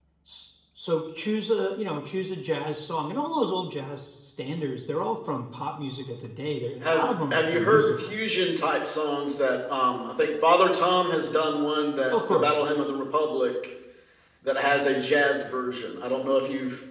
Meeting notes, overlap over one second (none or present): present